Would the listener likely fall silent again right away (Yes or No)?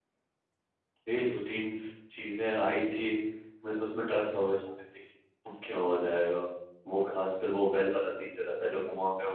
Yes